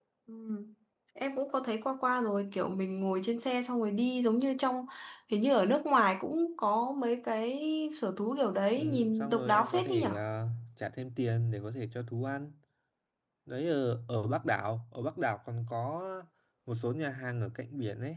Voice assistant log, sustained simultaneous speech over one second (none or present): present